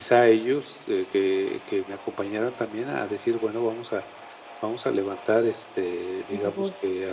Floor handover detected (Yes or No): No